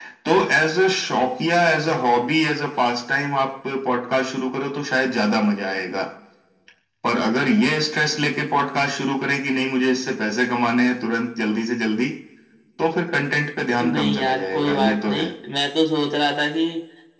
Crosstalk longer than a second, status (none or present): present